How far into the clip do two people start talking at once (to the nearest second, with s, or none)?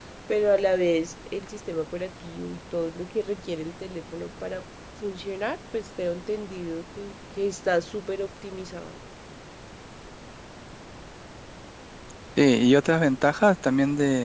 none